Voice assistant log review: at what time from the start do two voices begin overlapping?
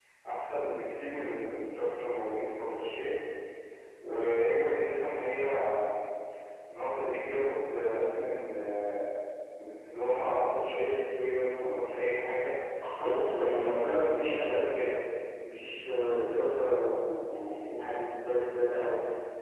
13.0 s

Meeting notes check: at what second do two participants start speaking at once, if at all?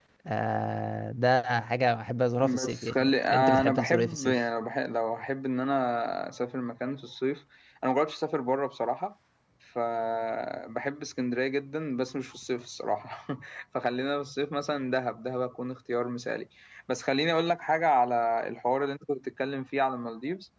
2.4 s

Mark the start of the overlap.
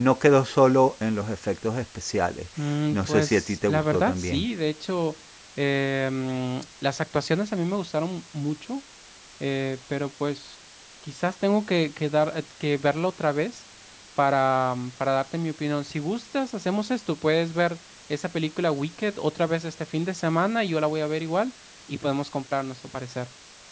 2.9 s

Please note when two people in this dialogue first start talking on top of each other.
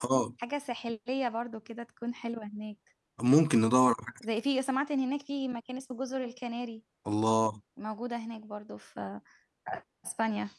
none

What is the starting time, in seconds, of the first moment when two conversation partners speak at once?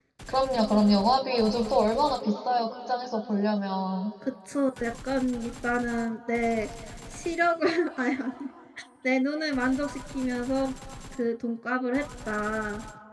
none

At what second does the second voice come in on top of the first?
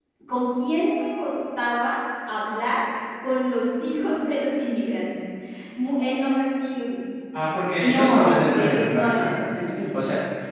7.8 s

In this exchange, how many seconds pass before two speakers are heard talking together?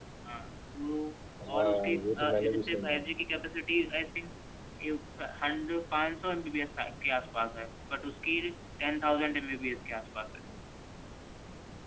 1.4 s

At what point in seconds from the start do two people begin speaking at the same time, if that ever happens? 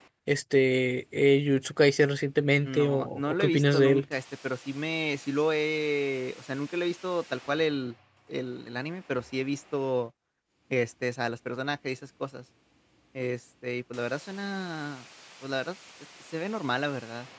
2.6 s

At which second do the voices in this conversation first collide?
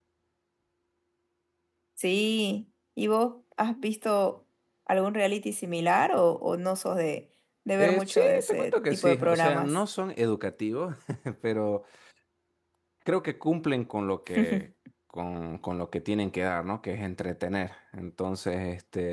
7.8 s

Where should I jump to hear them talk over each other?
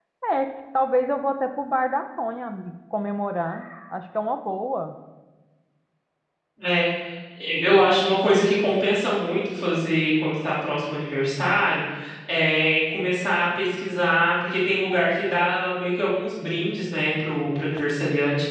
none

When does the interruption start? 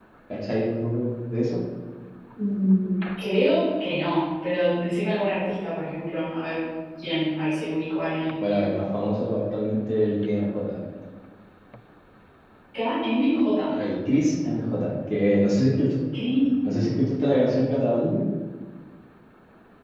none

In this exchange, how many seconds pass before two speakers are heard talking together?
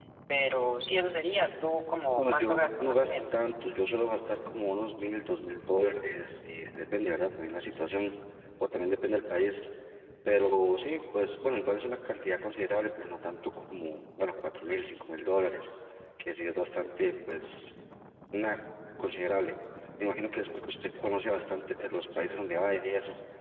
2.2 s

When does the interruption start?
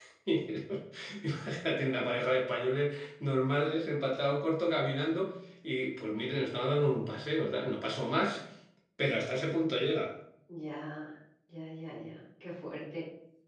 none

